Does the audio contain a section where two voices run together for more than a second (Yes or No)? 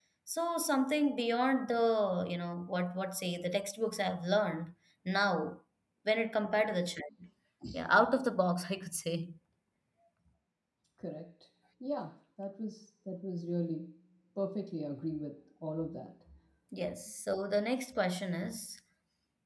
No